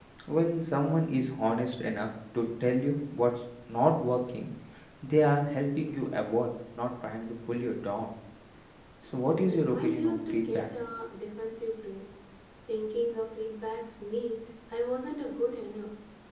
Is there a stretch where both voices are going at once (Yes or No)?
Yes